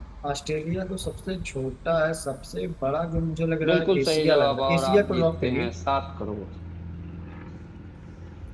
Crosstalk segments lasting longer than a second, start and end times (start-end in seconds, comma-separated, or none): 3.7-5.7